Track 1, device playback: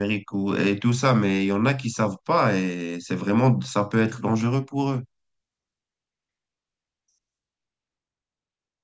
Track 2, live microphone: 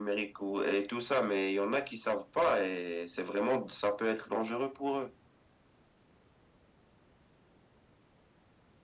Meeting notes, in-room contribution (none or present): none